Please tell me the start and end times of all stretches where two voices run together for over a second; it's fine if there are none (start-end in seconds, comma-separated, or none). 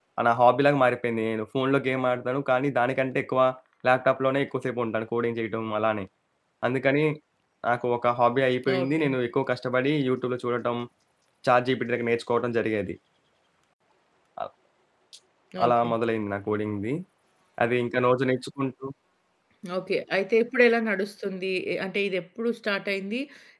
none